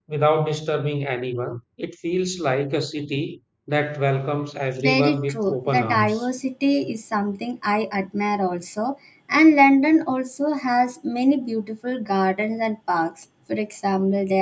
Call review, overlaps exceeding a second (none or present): present